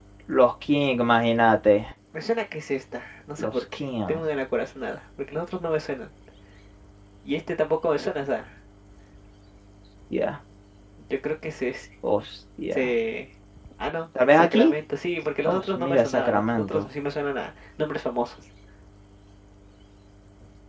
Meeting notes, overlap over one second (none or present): present